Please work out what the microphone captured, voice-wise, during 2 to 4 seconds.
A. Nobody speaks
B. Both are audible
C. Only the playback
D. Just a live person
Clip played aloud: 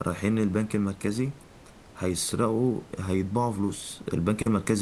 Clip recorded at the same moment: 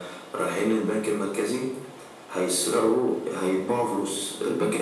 C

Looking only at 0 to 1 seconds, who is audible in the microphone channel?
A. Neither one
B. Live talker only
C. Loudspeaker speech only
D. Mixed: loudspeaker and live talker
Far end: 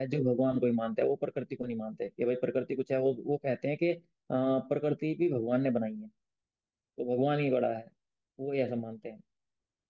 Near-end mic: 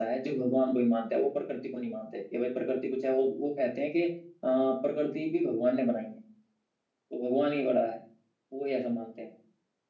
C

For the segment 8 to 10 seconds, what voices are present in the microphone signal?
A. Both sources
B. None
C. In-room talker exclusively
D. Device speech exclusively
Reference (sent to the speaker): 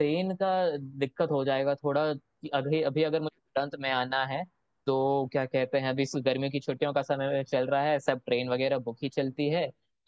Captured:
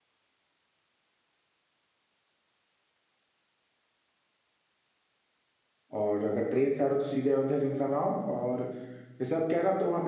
C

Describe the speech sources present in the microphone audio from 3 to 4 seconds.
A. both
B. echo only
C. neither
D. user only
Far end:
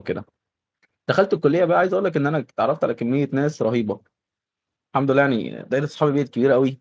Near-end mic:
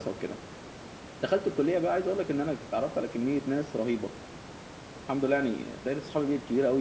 B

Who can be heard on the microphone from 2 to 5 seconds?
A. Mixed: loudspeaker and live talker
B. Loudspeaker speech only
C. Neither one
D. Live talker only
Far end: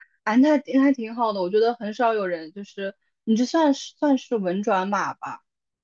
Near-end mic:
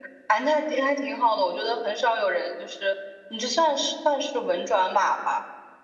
B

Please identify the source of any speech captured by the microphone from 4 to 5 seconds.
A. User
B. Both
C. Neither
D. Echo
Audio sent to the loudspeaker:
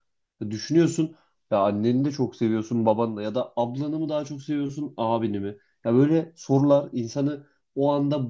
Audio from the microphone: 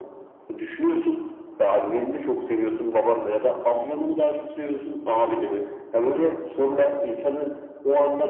D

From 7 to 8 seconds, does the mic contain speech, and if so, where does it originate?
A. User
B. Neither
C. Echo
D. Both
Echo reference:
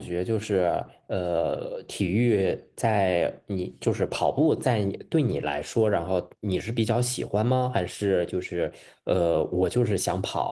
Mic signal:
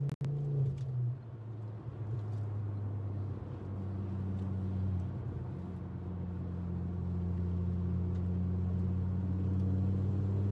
B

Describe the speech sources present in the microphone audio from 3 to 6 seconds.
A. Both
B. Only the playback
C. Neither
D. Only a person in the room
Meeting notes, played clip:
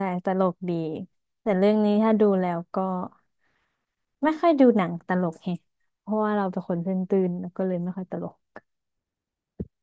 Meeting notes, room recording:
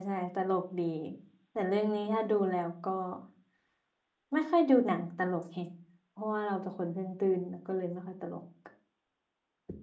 B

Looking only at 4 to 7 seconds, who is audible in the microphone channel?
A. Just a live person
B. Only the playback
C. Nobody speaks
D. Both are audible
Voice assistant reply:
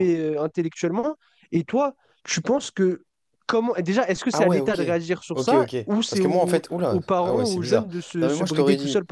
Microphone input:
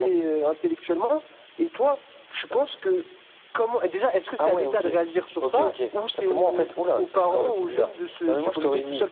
B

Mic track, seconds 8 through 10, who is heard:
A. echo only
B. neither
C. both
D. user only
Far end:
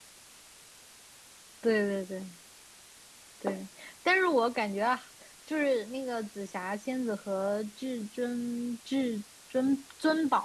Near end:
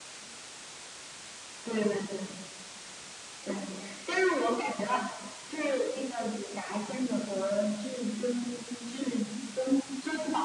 A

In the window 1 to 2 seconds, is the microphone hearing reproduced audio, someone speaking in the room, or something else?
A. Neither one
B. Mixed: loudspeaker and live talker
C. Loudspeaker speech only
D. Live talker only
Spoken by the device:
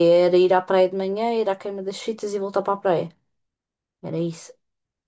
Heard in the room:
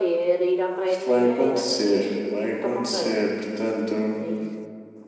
B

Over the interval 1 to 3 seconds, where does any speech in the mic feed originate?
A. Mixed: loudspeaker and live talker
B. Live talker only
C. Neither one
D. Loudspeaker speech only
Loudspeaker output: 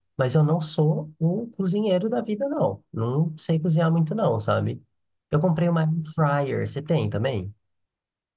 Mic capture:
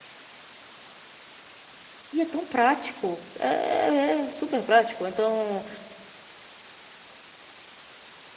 B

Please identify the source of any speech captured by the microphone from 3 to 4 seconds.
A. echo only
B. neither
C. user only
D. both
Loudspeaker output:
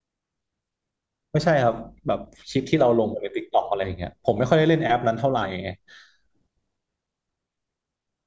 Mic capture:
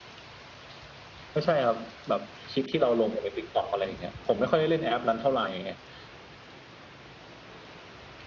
A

